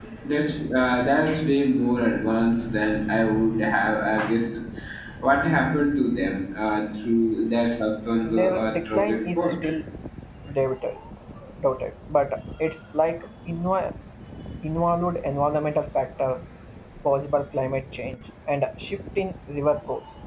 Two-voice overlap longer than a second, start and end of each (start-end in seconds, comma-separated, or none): 8.2-9.5